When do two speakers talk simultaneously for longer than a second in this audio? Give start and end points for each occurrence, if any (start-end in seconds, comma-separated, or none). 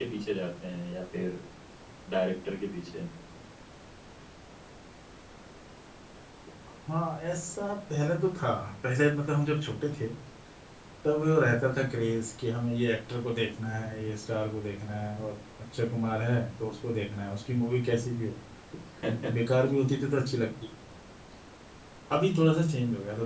none